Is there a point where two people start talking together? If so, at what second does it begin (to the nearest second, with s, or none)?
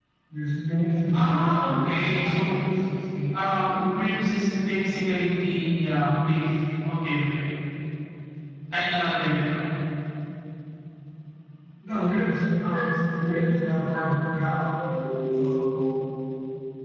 1 s